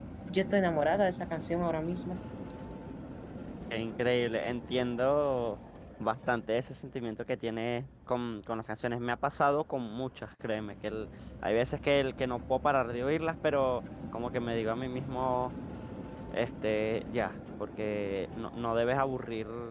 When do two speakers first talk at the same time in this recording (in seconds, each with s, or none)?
none